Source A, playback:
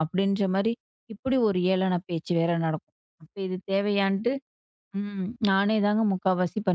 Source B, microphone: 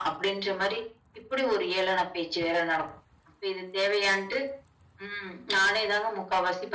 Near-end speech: none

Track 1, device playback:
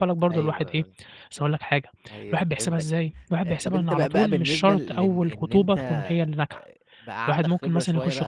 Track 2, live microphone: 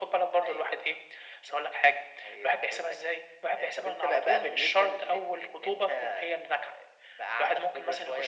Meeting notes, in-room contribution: none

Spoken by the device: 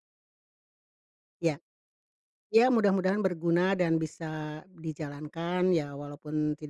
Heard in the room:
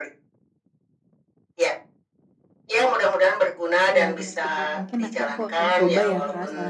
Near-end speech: present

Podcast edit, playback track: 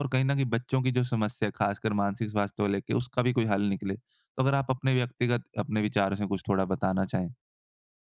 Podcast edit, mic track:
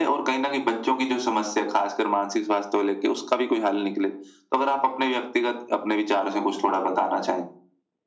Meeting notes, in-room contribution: none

